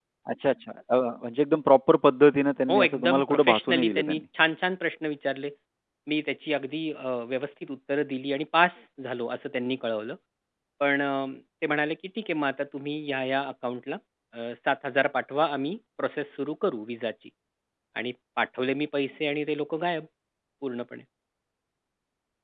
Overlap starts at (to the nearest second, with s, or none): 3 s